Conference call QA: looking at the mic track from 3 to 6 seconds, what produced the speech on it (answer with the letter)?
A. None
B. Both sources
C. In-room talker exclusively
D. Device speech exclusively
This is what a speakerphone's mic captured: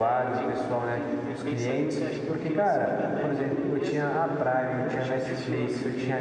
B